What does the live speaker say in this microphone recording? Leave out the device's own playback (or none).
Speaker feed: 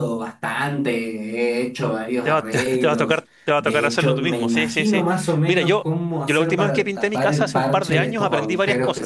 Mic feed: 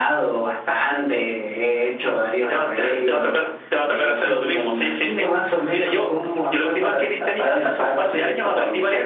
none